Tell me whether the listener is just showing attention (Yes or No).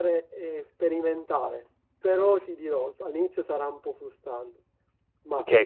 No